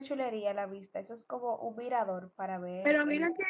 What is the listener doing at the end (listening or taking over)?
taking over